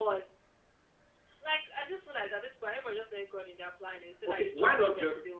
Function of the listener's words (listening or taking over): taking over